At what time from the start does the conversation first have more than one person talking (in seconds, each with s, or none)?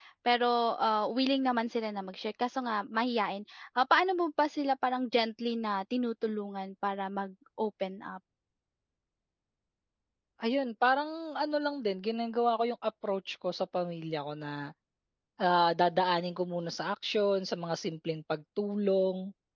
none